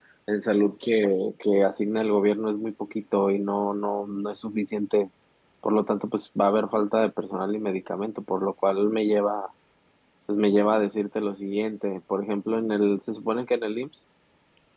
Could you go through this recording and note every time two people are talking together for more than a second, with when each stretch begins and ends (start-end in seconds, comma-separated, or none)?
none